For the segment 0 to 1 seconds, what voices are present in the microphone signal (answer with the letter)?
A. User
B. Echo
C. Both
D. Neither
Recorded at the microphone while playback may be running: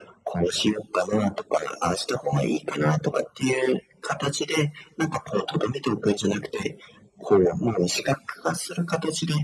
B